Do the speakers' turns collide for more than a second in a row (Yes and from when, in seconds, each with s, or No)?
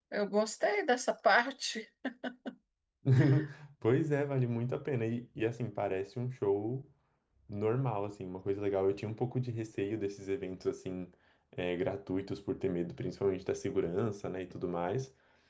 No